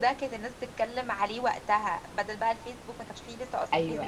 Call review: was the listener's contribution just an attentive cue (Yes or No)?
No